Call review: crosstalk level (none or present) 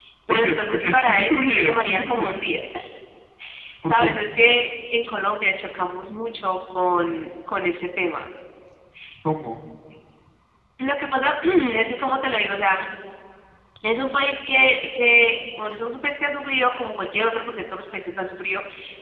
present